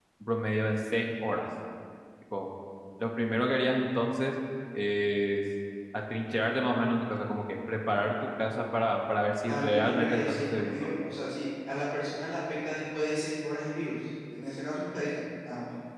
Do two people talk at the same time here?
Yes, from 9.5 s

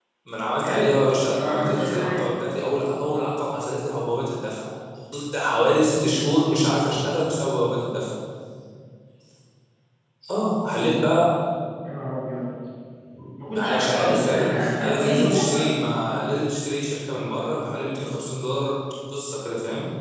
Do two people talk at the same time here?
Yes, from 0.6 s

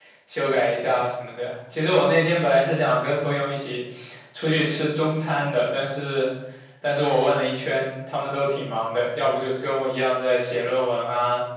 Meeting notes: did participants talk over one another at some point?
No

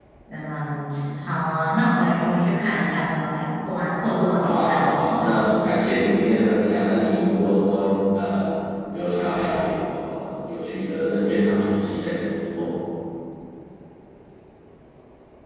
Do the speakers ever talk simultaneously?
Yes, from 4.4 s

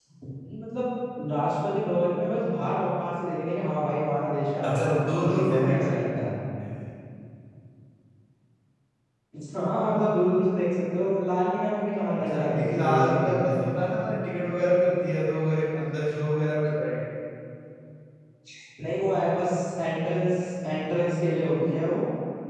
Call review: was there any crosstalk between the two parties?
Yes, from 4.6 s

